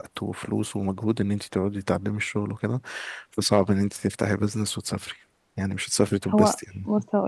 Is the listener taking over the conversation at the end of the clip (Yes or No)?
Yes